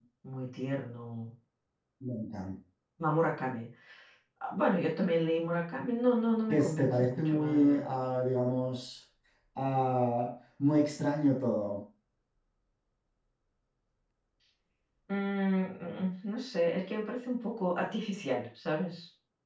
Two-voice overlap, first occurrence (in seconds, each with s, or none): 6.5 s